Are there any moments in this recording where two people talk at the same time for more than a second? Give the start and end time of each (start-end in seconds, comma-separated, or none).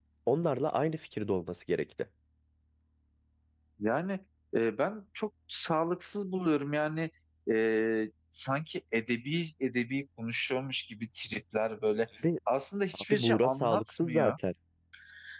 13.0-14.3